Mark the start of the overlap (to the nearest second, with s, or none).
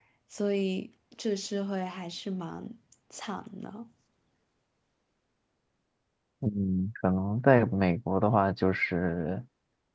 none